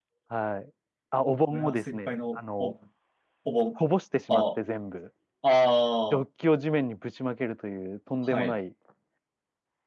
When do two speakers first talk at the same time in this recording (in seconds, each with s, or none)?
1.5 s